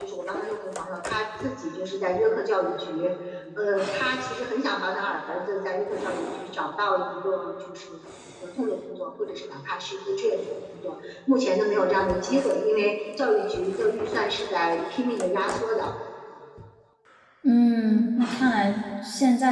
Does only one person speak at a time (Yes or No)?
Yes